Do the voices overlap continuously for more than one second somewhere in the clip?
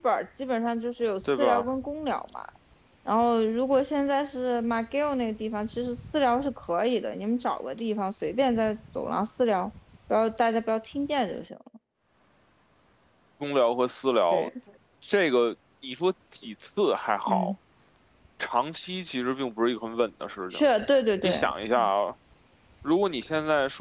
No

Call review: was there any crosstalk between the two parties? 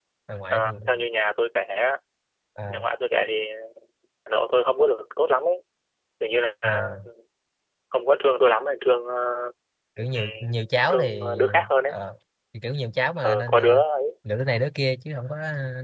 Yes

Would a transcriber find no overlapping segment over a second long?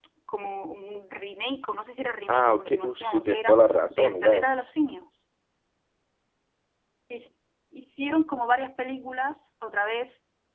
No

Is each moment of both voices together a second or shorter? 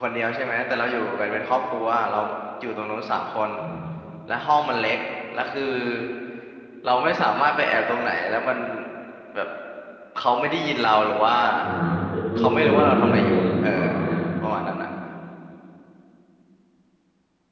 No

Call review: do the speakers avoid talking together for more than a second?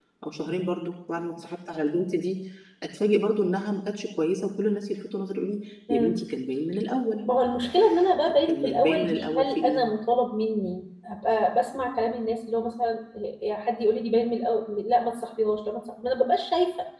No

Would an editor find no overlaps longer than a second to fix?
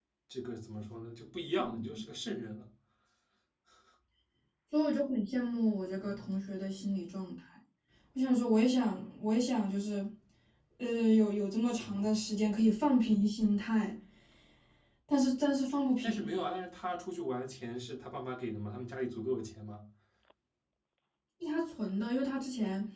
Yes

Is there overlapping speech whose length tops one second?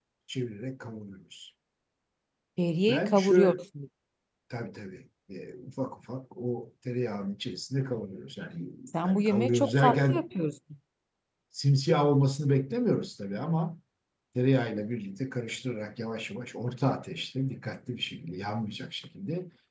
Yes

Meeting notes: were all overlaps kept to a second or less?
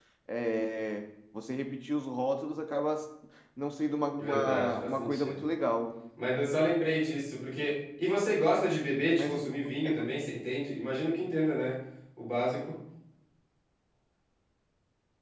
No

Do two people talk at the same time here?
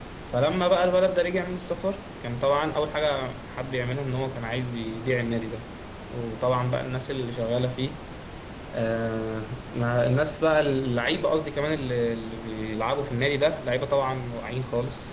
No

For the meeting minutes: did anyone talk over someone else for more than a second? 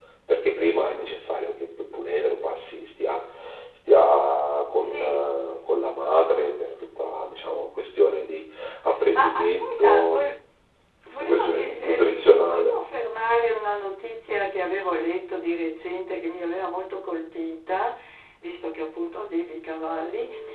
Yes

